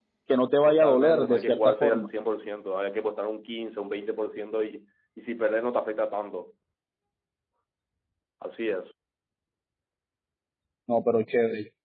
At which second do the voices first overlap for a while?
1 s

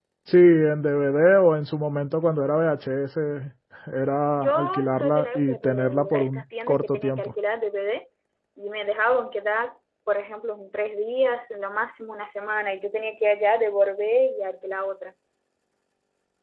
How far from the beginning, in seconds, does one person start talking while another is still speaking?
4 s

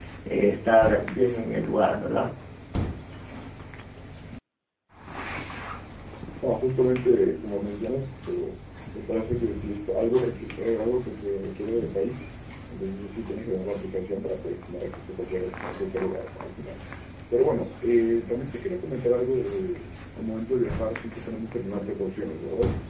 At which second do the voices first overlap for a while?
none

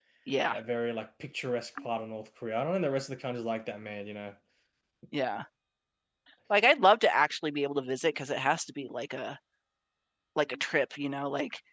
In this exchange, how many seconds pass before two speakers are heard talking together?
none

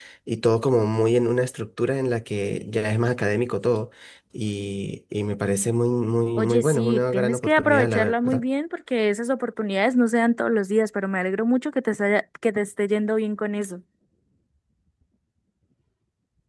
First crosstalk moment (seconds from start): 6 s

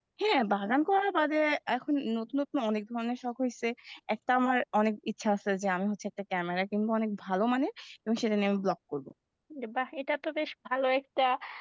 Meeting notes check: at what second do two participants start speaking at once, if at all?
none

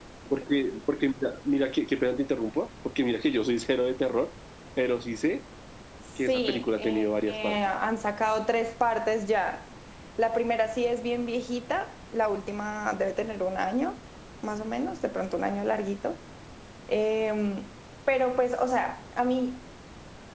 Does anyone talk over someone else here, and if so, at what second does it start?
6 s

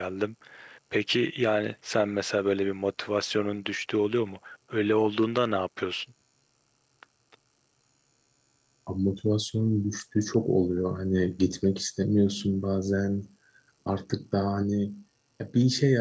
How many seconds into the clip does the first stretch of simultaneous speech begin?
none

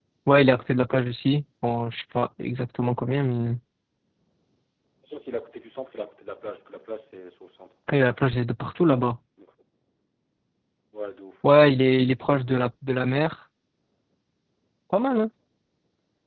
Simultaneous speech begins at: none

